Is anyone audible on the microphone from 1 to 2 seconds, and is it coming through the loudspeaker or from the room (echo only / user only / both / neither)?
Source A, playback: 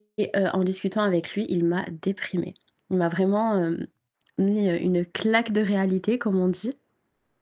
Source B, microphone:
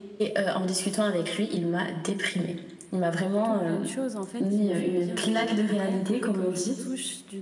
echo only